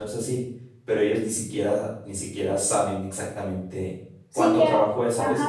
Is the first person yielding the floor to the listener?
Yes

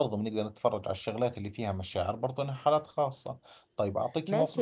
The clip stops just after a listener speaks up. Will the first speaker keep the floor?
No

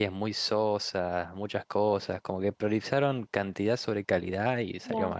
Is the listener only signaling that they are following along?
No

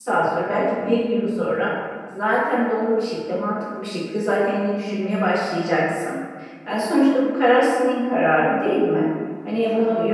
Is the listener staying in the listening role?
Yes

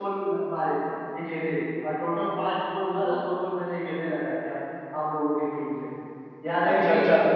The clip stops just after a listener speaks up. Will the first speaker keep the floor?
No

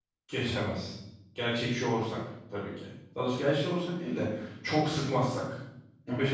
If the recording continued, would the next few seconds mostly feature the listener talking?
Yes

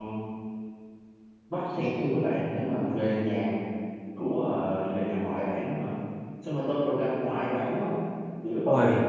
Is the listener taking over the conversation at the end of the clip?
No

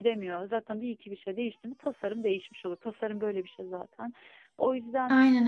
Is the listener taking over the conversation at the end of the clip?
No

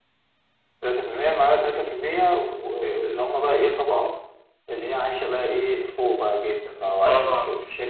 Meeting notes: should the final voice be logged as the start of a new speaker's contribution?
No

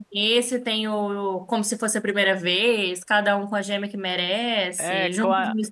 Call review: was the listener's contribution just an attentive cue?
No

